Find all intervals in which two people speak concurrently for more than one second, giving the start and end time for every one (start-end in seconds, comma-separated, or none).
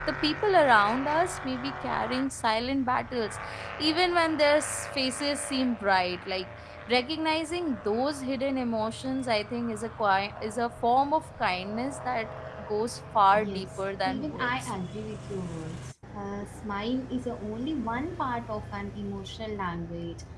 13.4-14.7